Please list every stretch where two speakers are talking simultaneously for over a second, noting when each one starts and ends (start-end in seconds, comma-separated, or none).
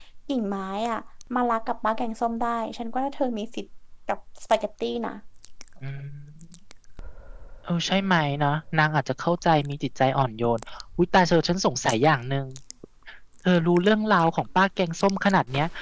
none